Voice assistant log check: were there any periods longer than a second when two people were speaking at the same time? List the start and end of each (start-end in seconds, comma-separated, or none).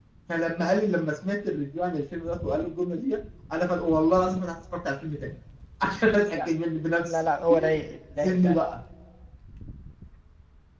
none